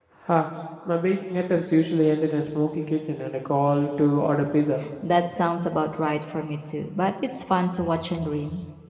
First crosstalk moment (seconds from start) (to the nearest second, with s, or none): none